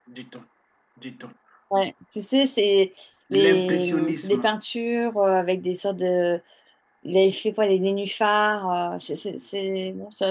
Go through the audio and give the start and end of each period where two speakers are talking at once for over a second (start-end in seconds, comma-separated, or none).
3.3-4.5